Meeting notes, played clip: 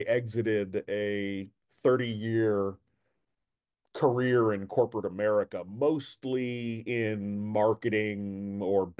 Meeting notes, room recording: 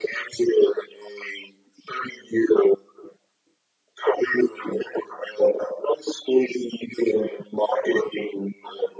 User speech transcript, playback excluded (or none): none